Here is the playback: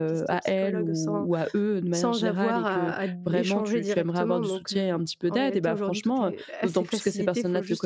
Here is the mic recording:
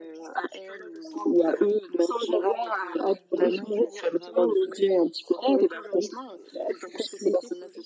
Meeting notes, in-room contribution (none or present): none